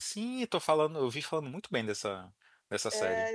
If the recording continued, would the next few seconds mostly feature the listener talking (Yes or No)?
Yes